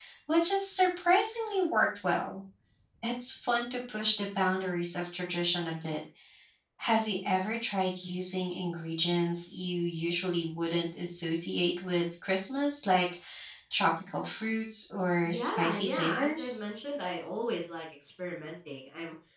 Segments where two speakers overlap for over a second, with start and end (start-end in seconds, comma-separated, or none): 15.2-16.6